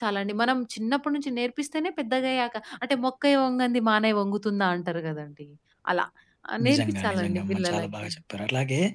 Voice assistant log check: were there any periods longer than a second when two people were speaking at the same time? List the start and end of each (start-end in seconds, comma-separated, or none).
6.7-8.1